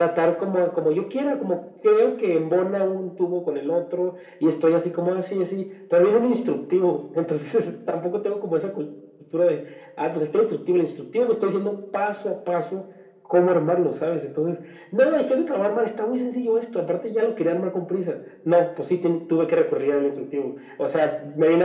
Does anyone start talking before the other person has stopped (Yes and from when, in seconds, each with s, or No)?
No